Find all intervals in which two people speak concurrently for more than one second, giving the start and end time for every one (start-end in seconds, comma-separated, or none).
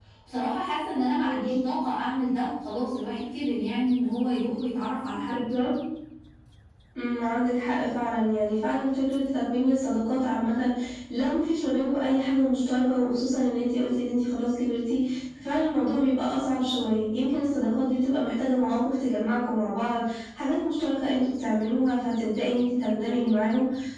none